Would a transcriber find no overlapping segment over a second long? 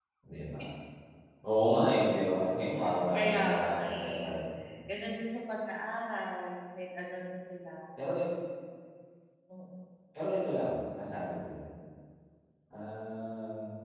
No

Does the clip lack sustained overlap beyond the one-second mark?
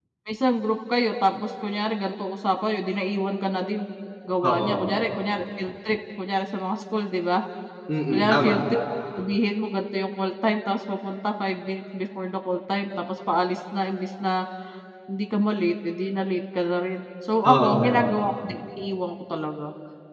Yes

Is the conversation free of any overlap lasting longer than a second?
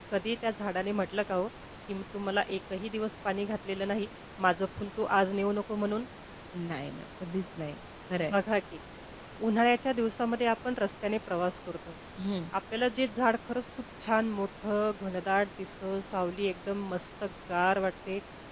Yes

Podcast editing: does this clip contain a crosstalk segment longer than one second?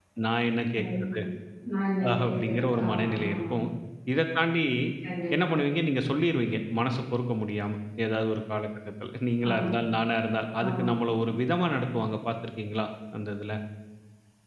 Yes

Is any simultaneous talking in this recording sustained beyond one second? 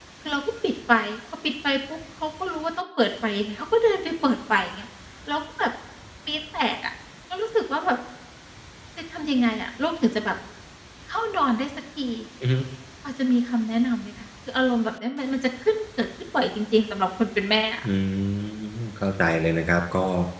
No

